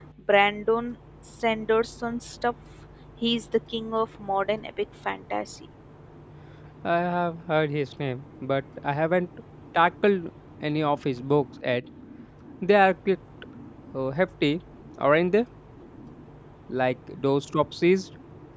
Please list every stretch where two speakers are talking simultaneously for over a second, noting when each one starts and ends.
none

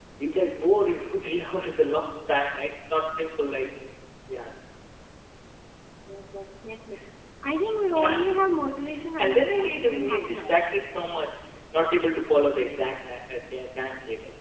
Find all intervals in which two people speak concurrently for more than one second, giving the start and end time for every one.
9.2-10.5

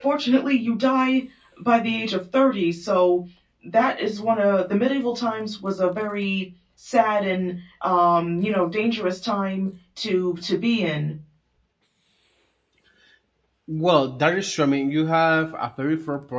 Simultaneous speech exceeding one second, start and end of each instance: none

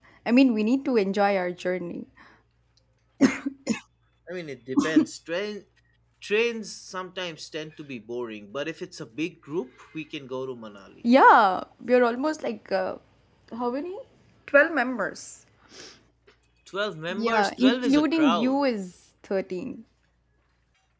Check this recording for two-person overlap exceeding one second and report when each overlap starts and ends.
17.1-18.6

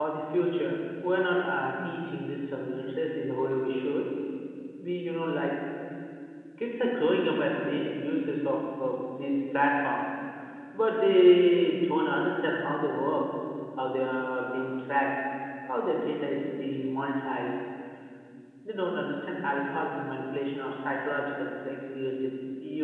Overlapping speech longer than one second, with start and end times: none

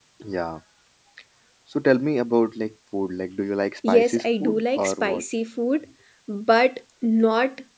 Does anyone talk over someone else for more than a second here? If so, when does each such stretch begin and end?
3.9-5.2

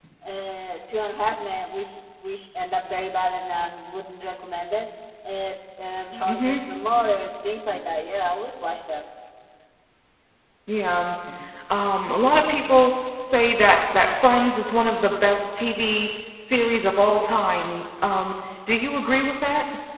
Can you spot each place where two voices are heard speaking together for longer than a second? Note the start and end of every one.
none

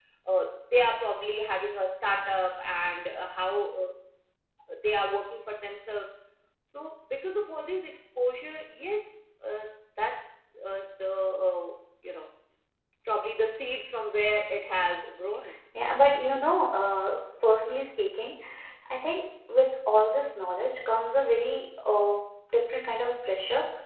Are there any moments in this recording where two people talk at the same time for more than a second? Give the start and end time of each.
none

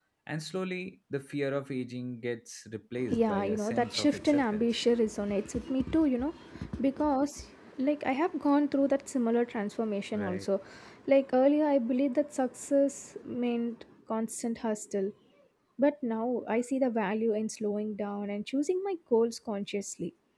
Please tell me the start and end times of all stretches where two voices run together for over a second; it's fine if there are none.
3.2-4.7

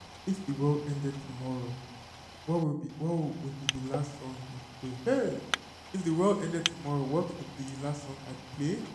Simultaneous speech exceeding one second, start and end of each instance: none

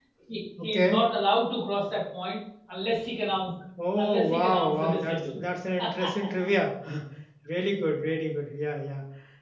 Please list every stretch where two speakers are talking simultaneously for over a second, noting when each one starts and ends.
4.0-5.4

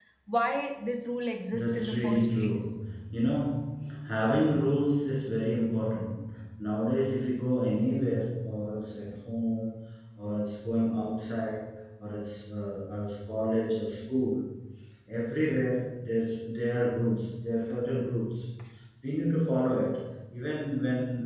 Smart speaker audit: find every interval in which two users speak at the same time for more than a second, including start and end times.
1.5-2.8

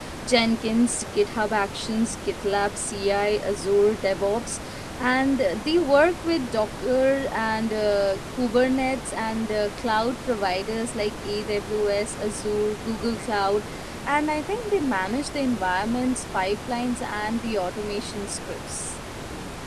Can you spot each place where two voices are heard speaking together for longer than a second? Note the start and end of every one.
none

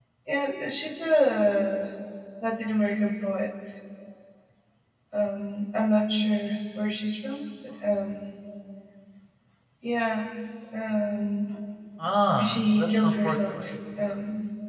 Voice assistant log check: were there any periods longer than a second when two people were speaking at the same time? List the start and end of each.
12.4-13.7

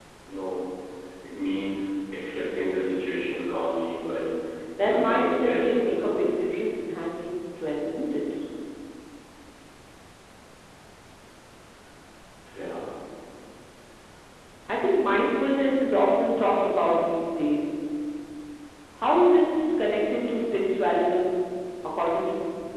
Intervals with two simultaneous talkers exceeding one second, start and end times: 4.8-6.3

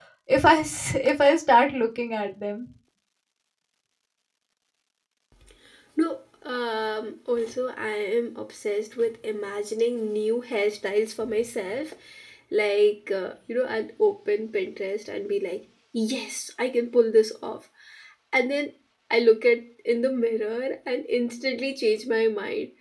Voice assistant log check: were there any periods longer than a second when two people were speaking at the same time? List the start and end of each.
none

